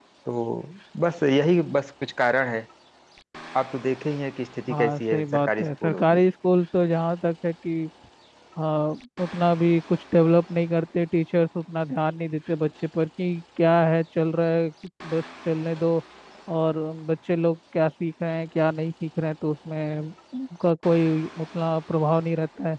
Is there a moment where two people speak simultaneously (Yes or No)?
Yes